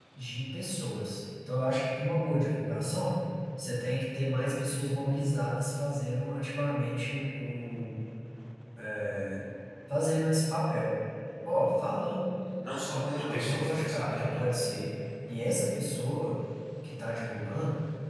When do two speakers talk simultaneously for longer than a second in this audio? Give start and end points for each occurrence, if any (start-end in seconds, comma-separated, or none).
12.9-14.4